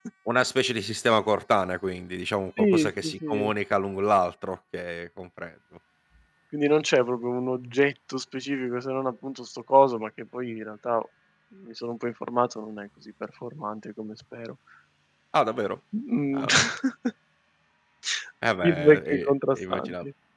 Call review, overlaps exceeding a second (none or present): present